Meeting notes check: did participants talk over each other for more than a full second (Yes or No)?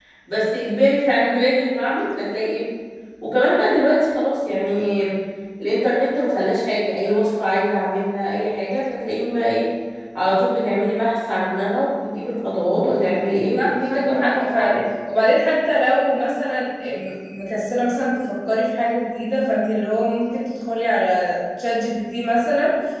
Yes